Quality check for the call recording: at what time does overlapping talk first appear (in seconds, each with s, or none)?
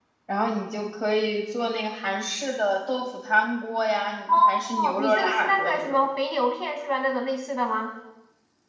4.3 s